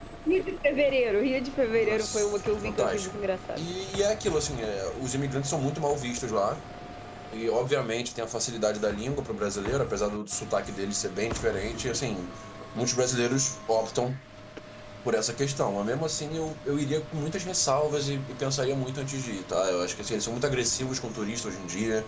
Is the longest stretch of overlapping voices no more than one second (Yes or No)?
No